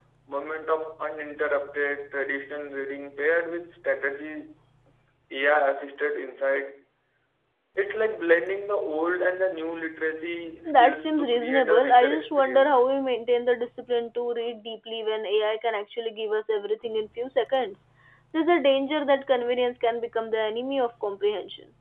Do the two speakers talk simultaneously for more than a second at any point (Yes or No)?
Yes